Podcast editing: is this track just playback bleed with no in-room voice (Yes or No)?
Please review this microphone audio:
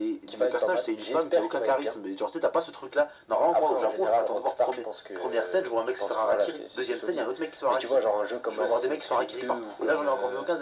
Yes